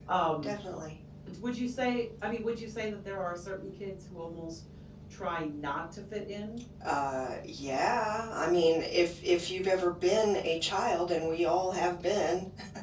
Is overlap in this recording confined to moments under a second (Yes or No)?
Yes